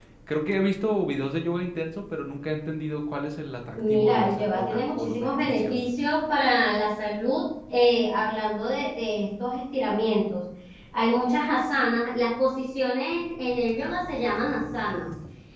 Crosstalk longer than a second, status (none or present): present